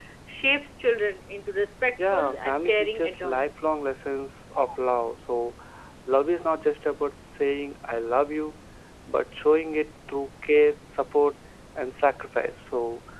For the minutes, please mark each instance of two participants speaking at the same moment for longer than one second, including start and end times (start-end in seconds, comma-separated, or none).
2.1-3.5